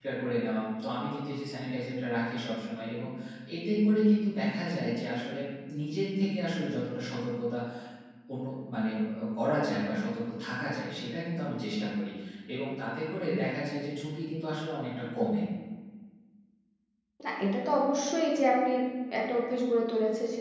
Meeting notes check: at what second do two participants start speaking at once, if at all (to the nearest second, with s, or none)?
none